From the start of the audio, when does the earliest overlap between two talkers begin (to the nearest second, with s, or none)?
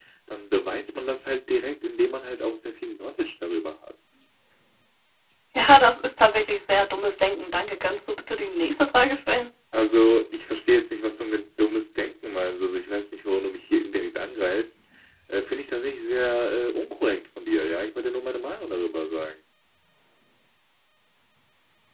none